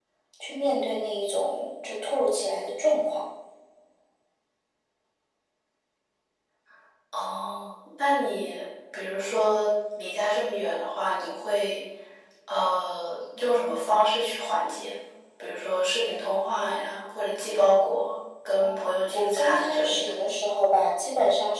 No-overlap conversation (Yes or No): No